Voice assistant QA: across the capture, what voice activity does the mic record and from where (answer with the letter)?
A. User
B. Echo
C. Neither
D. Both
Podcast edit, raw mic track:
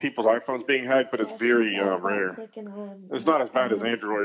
D